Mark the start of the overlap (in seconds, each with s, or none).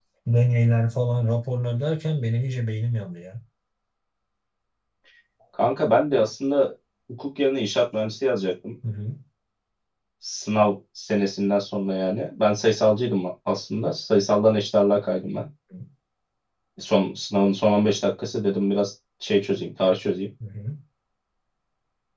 none